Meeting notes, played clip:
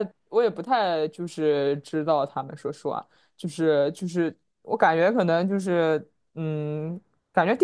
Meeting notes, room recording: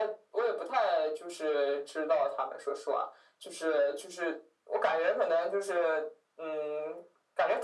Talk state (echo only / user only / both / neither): echo only